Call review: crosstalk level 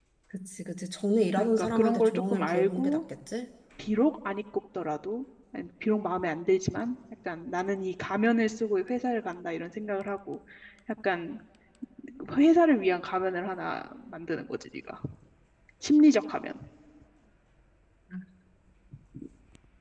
present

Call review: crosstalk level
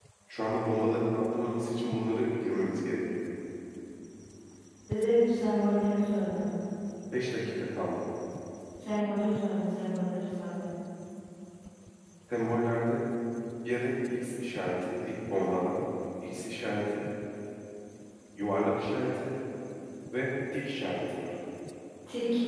none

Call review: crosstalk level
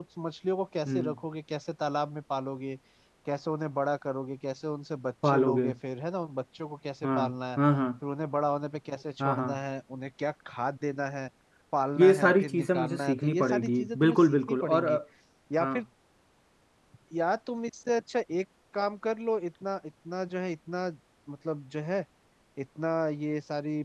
present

